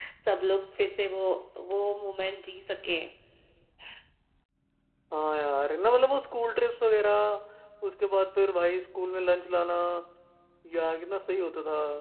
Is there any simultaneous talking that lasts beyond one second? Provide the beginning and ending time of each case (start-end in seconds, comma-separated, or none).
none